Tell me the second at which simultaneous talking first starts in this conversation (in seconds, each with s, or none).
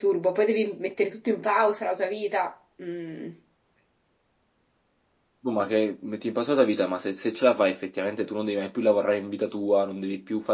none